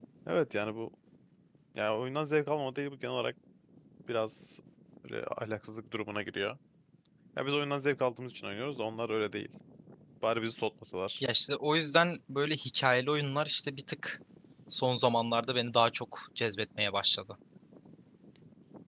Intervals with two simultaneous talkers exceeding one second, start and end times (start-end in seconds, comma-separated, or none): none